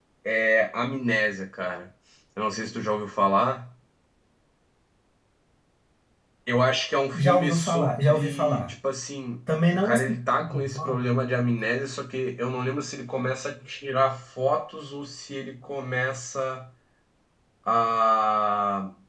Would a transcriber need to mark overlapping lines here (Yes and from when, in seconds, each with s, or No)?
Yes, from 7.1 s